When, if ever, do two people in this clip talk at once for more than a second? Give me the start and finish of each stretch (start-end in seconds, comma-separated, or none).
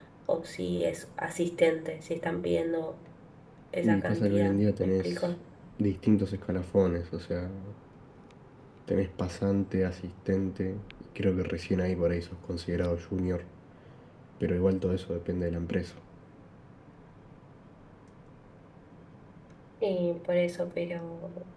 3.8-5.3